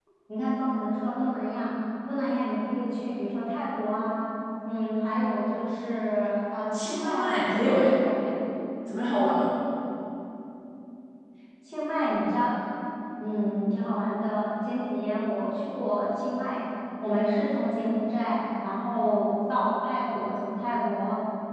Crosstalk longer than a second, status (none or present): present